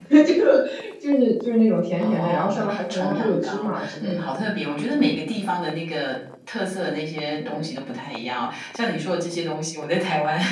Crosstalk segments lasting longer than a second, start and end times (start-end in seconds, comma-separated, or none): 2.0-4.1